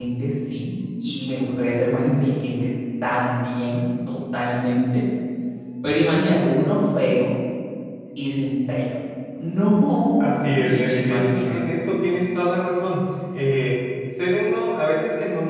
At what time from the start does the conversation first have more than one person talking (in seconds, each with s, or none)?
10.2 s